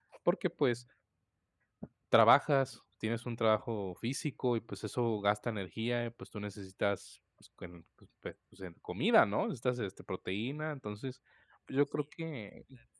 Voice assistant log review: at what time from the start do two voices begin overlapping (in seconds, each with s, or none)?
none